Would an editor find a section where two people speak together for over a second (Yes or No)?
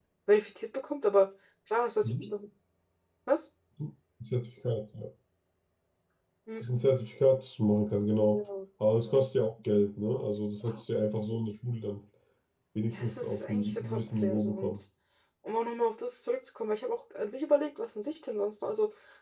Yes